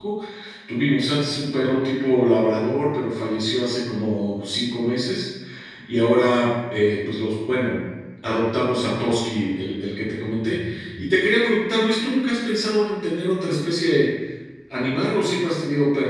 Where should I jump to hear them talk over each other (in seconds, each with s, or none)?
none